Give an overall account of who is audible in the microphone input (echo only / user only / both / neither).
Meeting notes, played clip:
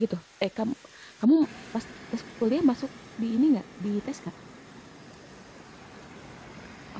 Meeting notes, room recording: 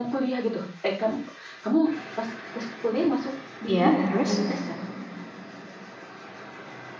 both